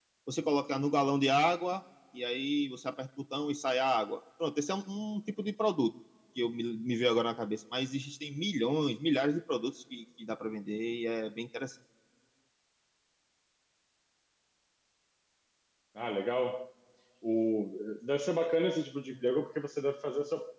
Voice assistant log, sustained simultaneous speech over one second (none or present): none